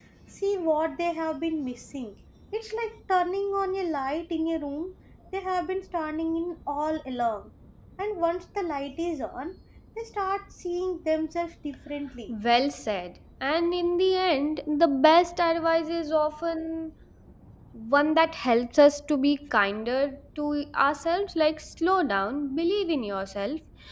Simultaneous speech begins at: none

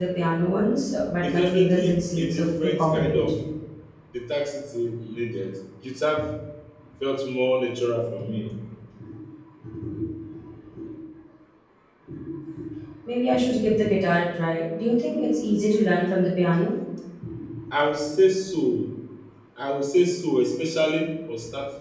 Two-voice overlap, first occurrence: 1.2 s

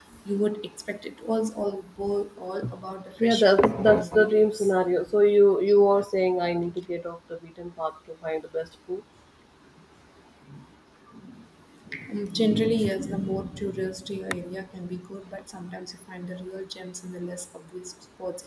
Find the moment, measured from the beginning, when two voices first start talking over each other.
3.2 s

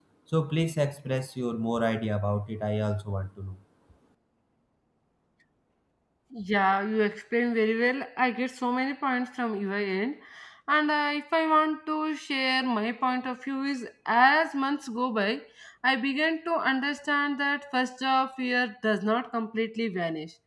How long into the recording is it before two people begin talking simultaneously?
none

